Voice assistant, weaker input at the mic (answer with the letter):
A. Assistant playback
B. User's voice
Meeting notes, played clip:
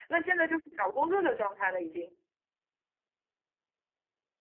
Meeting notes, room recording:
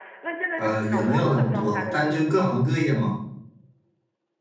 A